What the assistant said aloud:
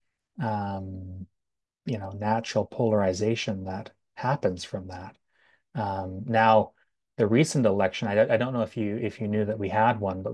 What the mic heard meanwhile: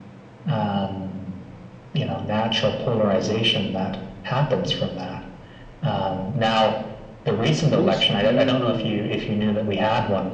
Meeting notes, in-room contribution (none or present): present